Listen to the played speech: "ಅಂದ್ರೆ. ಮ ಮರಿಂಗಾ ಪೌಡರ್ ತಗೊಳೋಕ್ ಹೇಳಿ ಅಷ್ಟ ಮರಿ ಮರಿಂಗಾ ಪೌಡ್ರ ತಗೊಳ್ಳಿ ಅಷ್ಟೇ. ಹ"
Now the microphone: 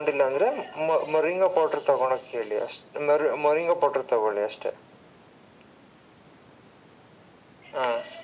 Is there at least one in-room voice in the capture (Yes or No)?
No